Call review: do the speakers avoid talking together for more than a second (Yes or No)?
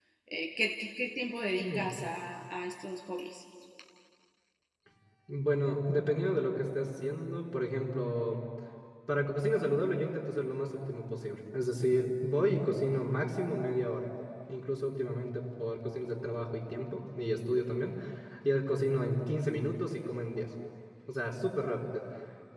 Yes